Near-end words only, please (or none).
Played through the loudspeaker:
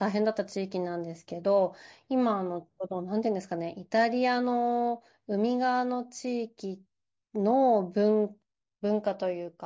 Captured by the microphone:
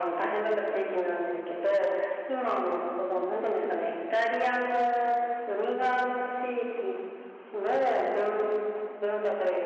none